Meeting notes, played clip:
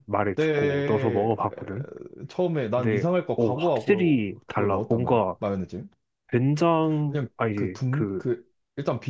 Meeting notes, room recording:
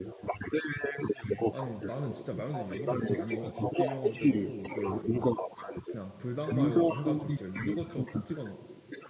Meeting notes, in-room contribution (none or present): present